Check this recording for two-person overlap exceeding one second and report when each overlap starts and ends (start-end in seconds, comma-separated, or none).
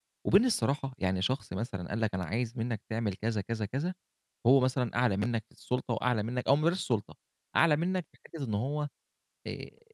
none